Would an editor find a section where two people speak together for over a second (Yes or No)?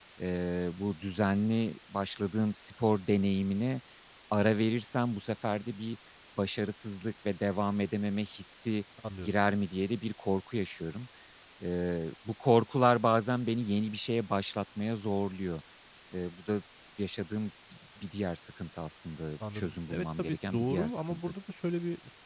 Yes